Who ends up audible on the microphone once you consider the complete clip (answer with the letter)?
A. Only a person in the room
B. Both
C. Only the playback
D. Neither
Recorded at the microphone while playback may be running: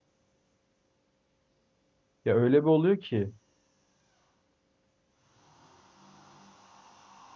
A